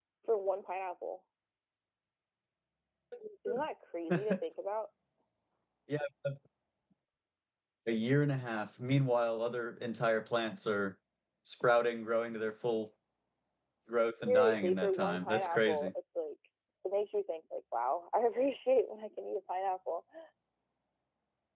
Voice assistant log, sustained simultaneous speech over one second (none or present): present